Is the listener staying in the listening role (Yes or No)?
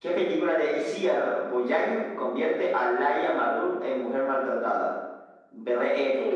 Yes